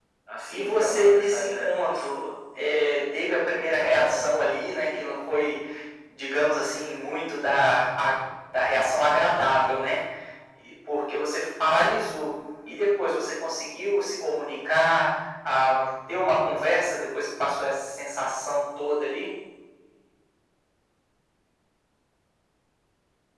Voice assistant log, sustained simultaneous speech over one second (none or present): present